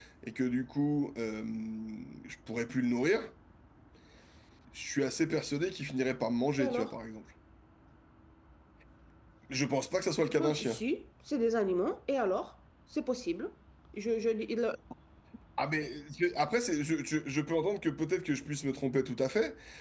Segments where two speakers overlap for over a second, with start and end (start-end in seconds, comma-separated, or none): none